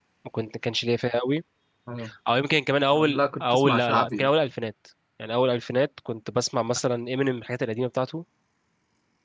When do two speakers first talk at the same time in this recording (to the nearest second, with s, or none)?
3 s